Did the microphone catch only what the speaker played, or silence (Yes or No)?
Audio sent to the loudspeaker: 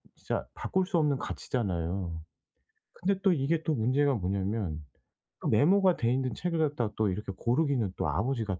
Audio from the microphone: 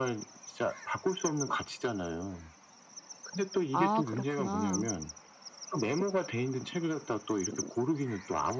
No